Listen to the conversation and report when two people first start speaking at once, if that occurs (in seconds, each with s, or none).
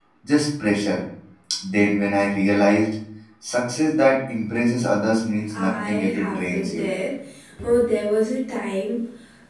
5.5 s